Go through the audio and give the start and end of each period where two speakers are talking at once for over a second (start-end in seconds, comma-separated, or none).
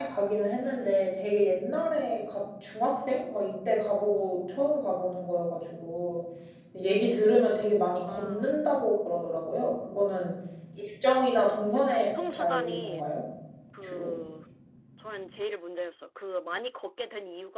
11.8-13.1